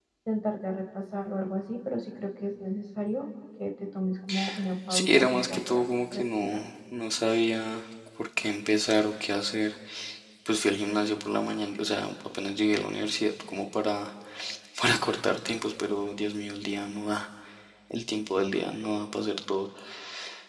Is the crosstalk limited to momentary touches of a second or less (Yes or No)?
No